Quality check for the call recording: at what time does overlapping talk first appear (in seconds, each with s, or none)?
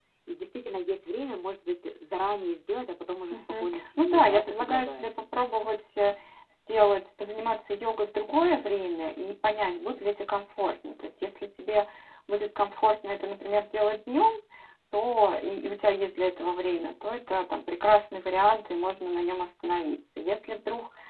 3.3 s